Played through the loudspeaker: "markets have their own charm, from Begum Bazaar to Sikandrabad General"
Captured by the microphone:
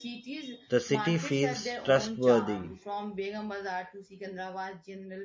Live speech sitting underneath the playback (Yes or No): No